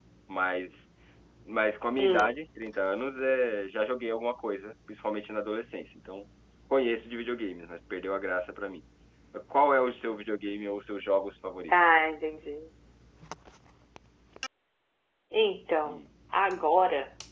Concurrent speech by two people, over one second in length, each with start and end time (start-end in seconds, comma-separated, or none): none